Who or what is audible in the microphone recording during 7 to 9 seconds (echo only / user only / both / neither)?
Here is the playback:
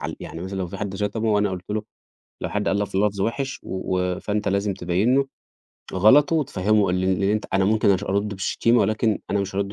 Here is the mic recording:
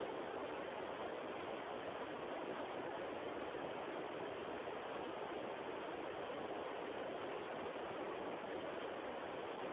neither